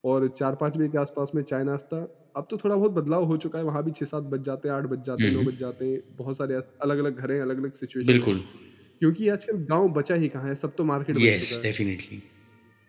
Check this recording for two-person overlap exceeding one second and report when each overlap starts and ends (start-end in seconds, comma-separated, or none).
none